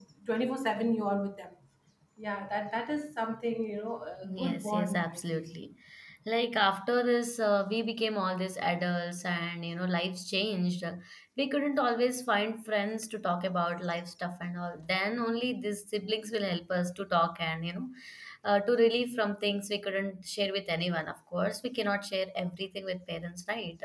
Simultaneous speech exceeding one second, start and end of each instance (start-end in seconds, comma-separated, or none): 4.2-5.5